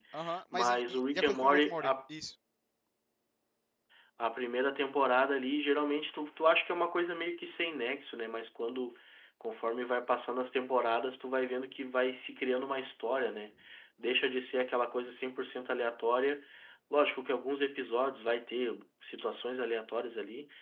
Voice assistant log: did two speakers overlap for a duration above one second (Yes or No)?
Yes